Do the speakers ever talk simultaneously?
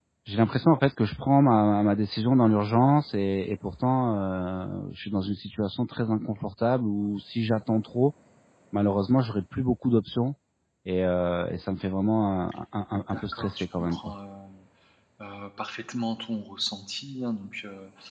Yes, from 12.9 s

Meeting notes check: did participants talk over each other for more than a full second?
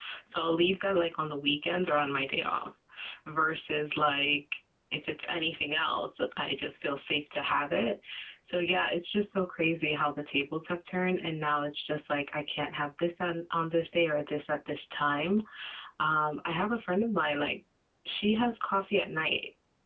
No

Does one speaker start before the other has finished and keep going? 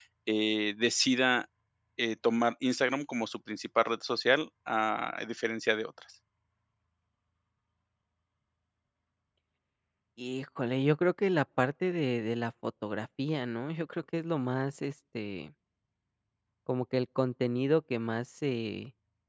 No

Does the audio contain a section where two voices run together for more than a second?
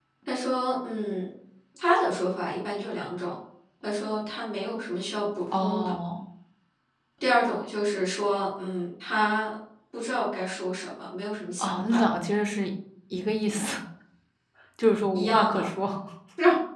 No

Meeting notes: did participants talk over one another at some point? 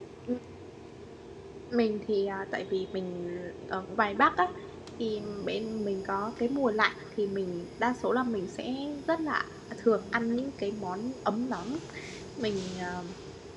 No

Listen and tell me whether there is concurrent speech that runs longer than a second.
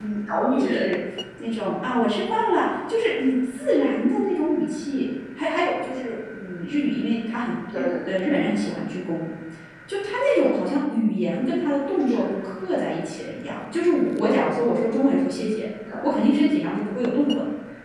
No

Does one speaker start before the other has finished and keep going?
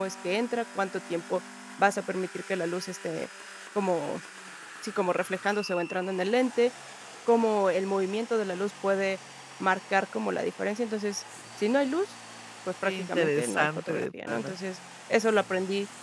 Yes, from 12.8 s

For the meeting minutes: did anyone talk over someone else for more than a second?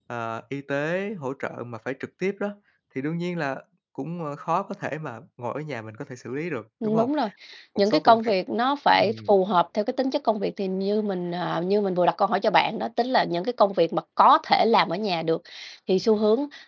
No

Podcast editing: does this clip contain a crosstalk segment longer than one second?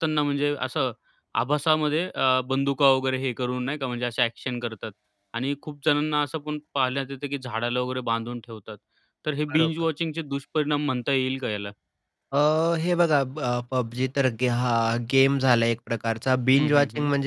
No

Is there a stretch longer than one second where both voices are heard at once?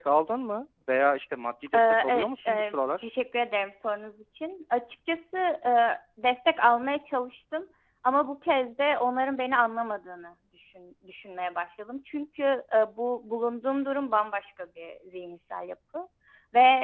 Yes, from 1.7 s

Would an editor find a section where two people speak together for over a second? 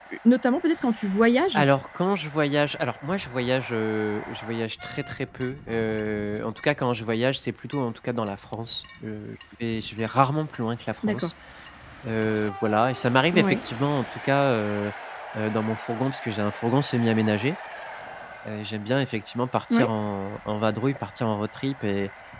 No

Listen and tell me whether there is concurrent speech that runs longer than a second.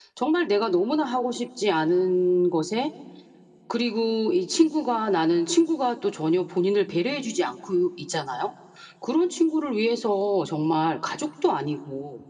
No

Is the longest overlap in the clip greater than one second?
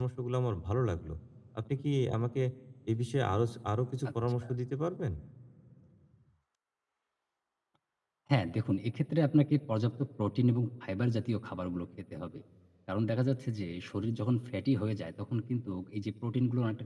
No

